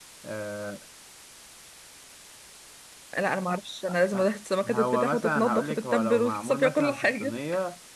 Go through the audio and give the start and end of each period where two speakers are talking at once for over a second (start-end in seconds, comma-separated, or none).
4.7-7.4